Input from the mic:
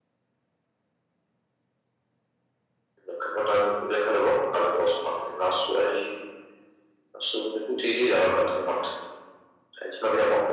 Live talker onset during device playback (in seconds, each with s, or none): none